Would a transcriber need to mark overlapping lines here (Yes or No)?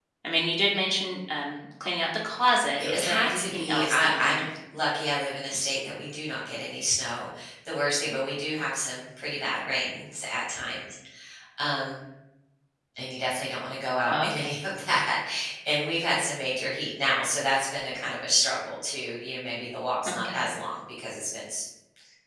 Yes